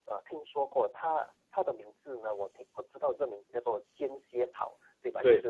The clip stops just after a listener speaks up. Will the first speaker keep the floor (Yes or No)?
Yes